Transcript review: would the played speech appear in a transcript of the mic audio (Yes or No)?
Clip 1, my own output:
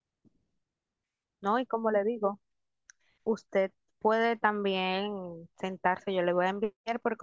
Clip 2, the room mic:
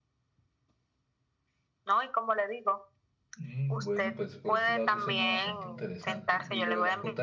Yes